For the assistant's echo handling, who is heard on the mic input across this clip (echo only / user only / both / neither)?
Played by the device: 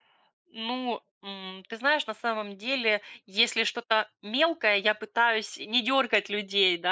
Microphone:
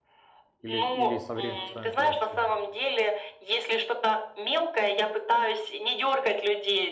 both